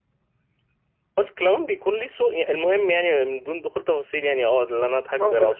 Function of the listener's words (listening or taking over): listening